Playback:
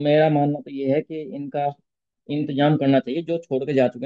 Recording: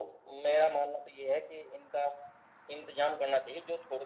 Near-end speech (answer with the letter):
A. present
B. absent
B